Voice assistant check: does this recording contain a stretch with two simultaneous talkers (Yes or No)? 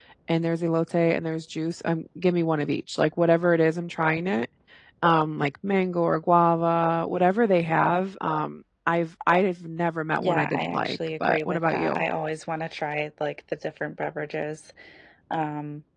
Yes